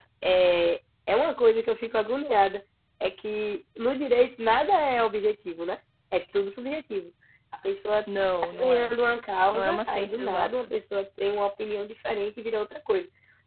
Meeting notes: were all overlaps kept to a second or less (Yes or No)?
No